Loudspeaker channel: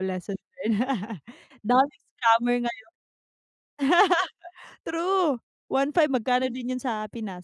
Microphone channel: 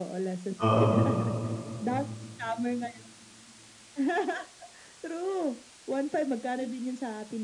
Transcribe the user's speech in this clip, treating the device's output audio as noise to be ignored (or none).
Oo.